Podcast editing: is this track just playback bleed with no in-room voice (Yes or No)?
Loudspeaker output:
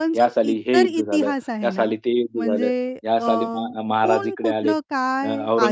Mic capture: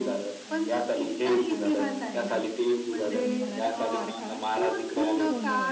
No